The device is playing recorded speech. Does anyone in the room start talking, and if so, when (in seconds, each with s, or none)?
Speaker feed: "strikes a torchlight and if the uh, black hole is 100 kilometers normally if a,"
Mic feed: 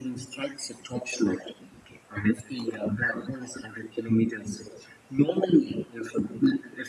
none